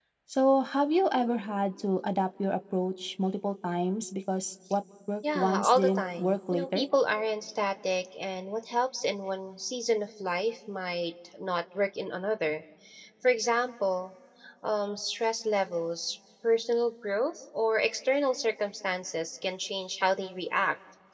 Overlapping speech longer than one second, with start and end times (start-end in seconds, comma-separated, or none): 5.3-6.9